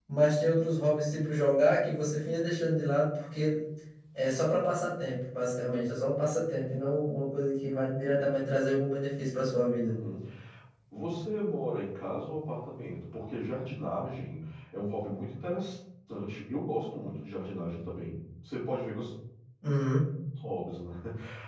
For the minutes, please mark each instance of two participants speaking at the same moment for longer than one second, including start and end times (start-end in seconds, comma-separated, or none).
none